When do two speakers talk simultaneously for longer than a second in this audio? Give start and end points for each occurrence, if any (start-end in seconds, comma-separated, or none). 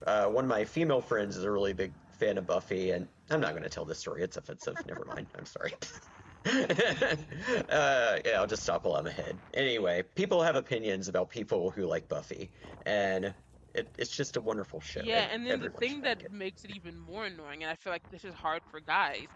14.9-16.3